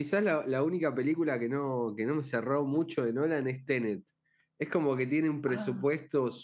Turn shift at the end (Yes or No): No